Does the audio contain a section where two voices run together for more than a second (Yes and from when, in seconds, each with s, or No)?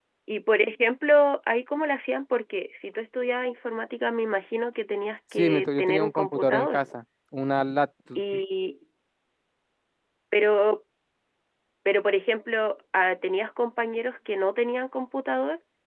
Yes, from 5.3 s